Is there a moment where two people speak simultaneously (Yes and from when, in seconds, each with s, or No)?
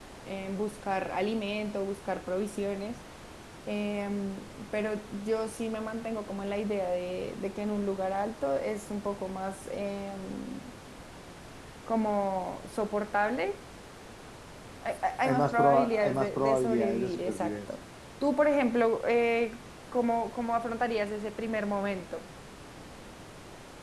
Yes, from 15.2 s